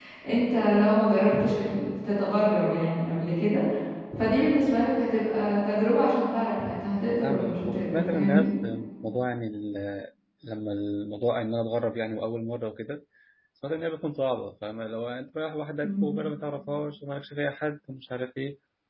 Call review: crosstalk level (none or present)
present